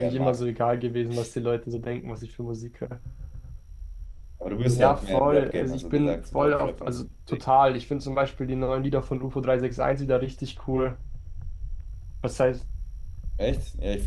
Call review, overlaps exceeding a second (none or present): present